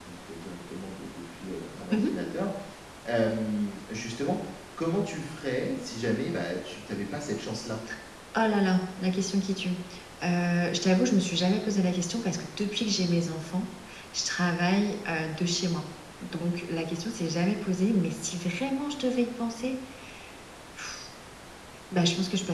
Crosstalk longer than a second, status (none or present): none